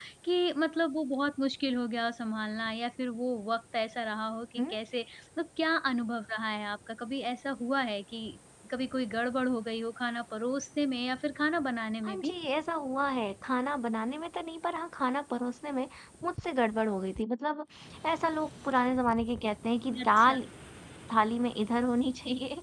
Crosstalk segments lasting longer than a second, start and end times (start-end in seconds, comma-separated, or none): none